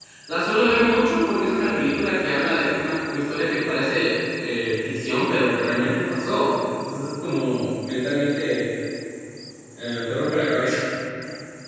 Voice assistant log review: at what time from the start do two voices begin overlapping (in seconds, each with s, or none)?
none